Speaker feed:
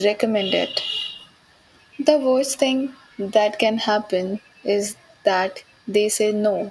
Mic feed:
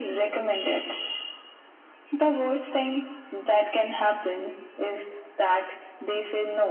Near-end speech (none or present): none